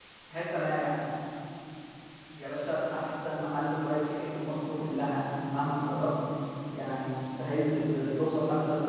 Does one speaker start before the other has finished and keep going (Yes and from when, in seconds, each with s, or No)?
No